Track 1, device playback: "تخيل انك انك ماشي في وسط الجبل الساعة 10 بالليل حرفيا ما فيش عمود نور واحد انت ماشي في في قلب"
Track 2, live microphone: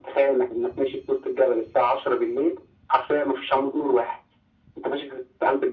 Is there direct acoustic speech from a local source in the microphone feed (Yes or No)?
No